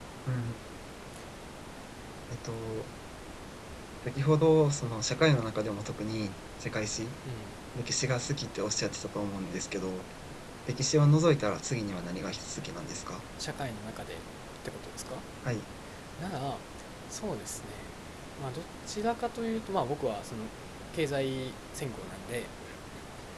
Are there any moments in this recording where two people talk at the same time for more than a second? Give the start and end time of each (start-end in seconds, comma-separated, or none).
none